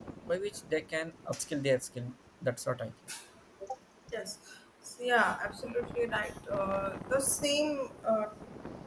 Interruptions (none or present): none